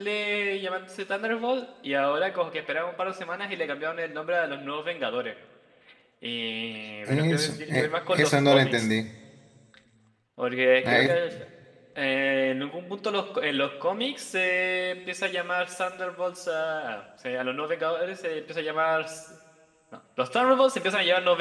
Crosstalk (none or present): present